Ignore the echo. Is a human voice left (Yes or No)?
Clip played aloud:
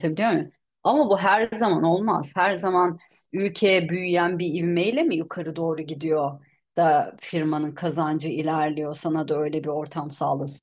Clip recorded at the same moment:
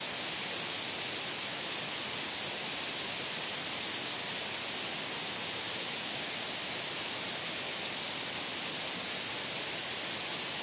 No